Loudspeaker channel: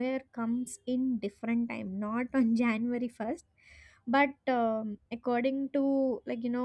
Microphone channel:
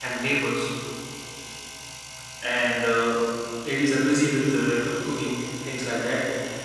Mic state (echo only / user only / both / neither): user only